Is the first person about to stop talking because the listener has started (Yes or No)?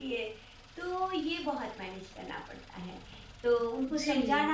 No